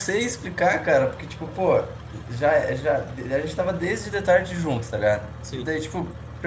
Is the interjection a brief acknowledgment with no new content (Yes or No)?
Yes